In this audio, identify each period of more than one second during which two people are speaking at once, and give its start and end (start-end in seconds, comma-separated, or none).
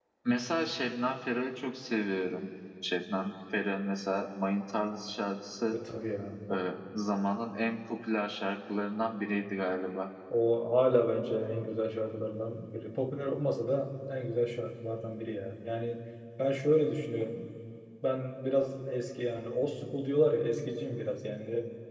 none